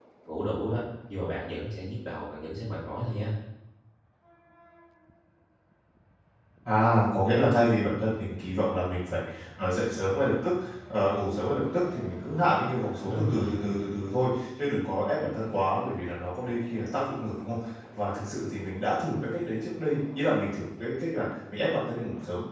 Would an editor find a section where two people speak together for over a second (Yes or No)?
No